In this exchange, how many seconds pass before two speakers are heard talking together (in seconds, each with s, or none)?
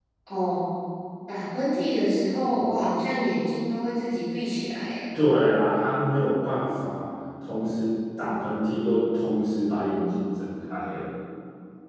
none